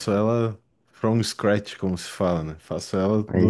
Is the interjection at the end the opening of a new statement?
No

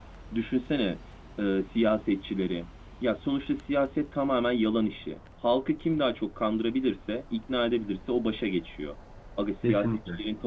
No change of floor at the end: Yes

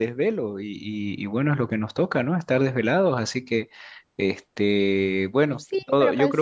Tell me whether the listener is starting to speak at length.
Yes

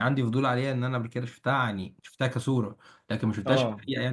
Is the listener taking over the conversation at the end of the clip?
No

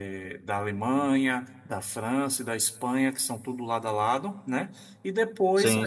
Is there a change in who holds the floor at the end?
No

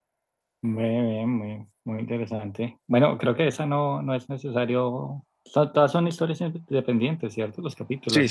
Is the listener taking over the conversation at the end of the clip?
Yes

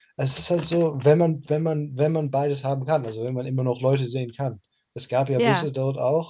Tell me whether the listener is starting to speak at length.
No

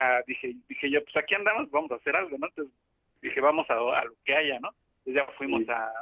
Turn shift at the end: No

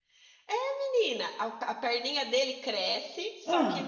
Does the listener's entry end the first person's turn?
No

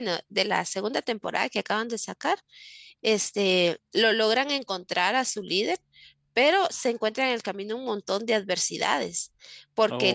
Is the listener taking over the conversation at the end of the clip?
No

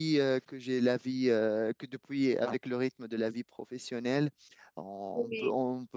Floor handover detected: No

